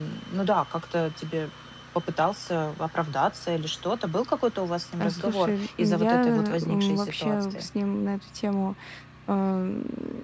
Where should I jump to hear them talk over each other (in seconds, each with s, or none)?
5.0 s